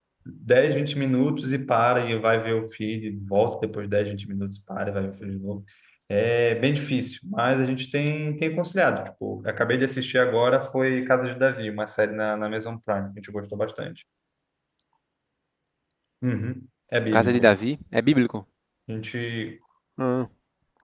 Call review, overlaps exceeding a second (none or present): none